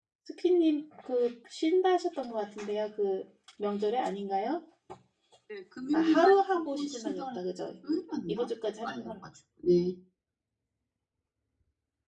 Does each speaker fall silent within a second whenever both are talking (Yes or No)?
No